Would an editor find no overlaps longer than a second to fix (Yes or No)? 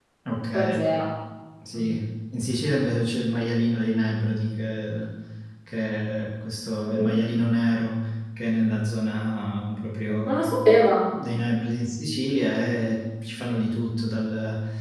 Yes